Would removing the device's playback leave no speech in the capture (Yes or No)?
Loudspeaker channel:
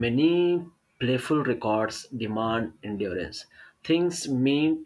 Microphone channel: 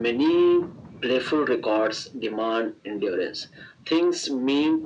Yes